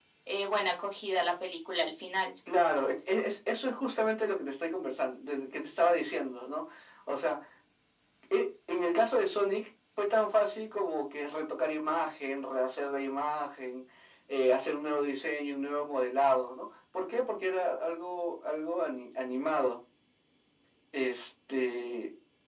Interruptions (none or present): none